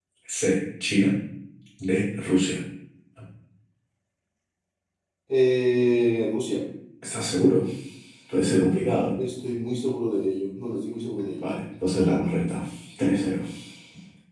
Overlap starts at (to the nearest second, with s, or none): none